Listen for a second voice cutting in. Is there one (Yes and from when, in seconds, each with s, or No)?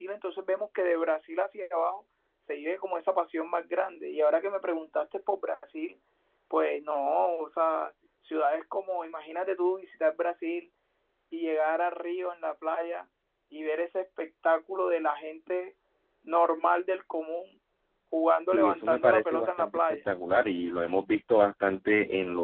Yes, from 18.5 s